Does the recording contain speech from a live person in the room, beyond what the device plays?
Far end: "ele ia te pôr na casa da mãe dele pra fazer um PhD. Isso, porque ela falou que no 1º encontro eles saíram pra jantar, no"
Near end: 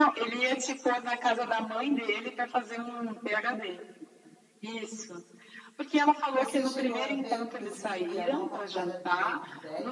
Yes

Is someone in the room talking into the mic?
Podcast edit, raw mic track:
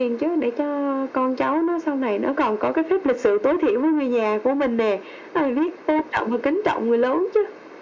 No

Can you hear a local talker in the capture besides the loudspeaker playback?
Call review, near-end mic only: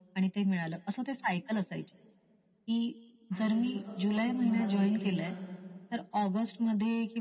Yes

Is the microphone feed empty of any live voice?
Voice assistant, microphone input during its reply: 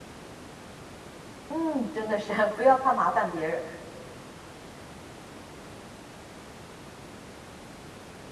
No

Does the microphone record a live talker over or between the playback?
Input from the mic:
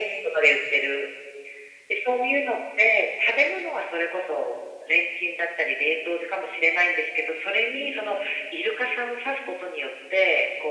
No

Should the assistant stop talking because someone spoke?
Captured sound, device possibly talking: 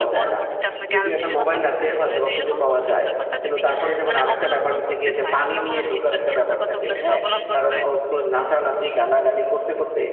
Yes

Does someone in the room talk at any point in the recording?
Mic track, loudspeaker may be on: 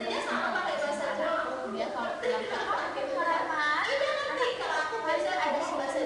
Yes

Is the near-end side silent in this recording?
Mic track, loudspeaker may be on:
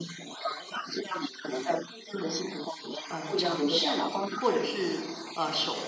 No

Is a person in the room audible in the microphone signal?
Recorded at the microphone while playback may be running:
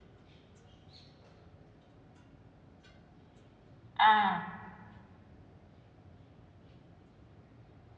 Yes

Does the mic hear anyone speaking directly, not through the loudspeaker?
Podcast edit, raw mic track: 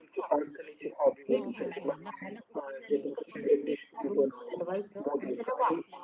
Yes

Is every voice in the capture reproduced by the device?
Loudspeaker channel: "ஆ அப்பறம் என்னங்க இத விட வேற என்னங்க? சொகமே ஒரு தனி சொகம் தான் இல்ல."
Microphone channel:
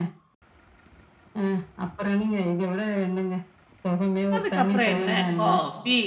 No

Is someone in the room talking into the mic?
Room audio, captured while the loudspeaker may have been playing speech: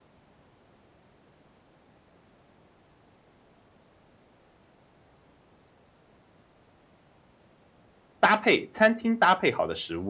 Yes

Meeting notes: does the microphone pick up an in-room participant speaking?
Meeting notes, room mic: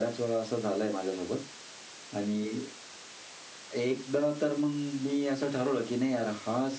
No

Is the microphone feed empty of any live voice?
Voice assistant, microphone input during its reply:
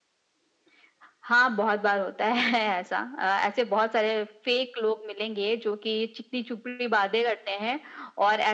Yes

